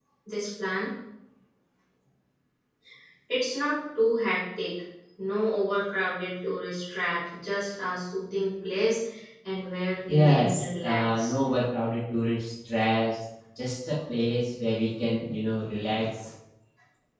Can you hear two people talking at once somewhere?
Yes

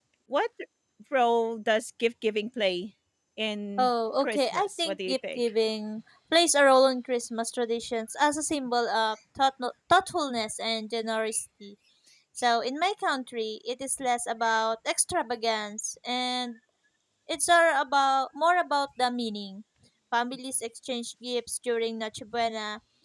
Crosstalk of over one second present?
Yes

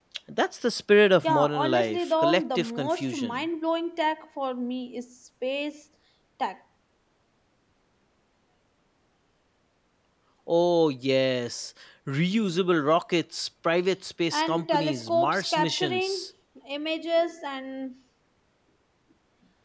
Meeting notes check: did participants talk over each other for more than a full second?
Yes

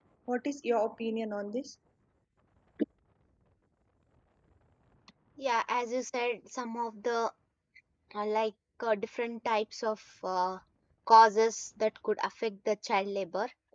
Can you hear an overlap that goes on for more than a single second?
No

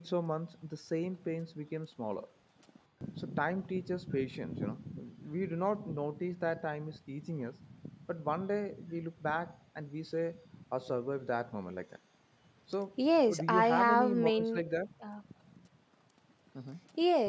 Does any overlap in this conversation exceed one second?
Yes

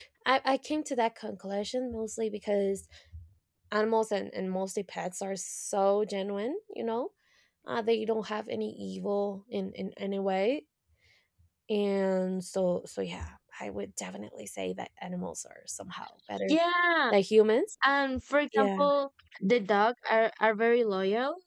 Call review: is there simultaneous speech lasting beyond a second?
No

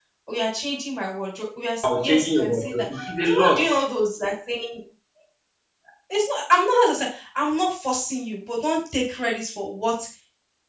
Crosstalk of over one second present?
Yes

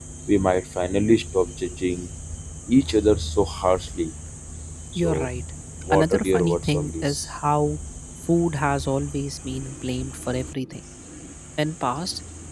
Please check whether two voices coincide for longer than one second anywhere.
Yes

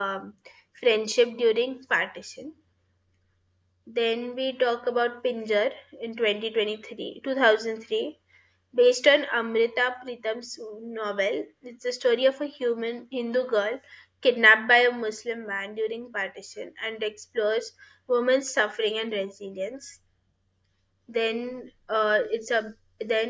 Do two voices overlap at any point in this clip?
No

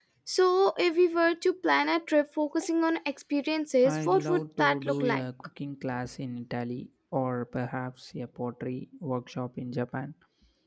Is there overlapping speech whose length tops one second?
Yes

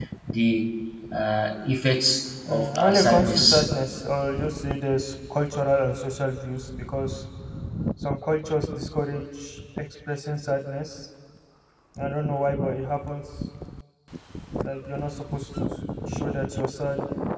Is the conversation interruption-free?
No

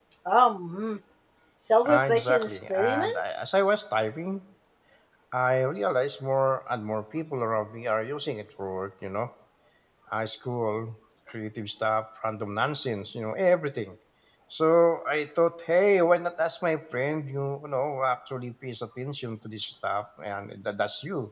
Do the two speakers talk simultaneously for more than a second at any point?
Yes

